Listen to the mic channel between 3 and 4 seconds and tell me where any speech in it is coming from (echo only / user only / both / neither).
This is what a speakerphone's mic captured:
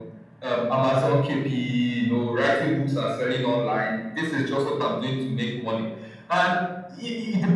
echo only